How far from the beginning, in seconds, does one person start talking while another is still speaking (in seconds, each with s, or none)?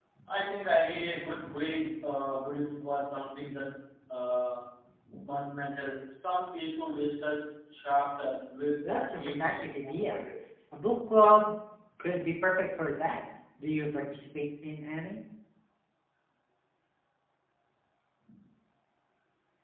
8.8 s